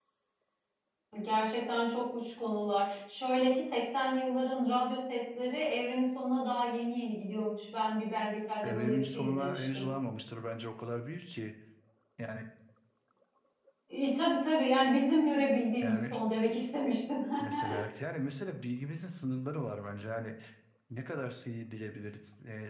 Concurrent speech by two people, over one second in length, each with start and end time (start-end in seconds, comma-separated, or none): 8.6-9.9